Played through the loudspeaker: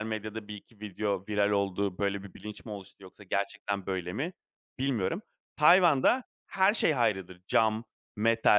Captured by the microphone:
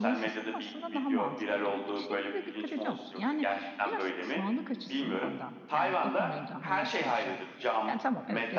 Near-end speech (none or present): present